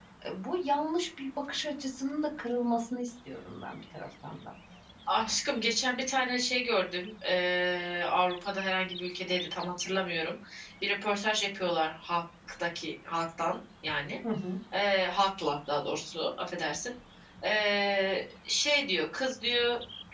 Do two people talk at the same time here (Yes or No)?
No